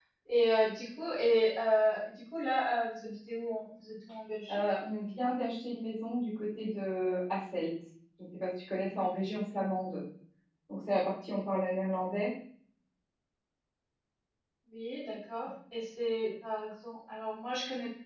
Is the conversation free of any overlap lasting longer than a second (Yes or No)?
Yes